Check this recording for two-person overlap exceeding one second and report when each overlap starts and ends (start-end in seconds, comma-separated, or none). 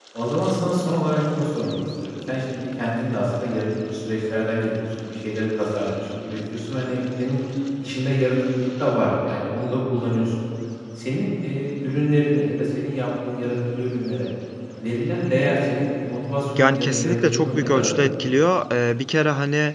16.6-18.3